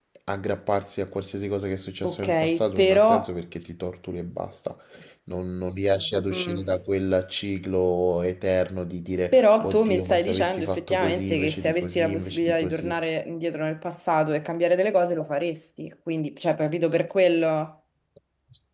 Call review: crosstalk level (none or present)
present